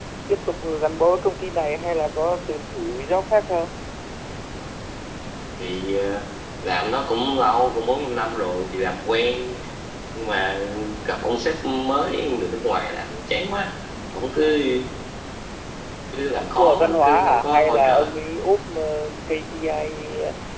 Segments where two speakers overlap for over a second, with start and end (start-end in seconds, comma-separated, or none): 16.4-18.1